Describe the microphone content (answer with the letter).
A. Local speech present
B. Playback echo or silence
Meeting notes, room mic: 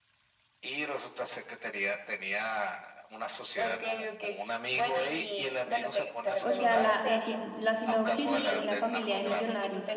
A